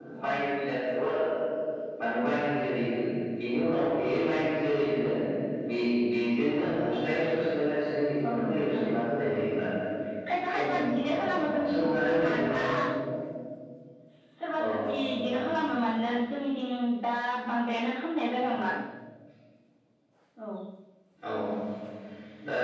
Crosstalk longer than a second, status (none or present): present